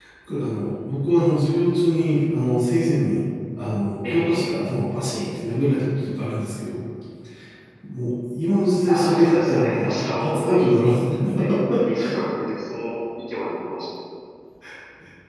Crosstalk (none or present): present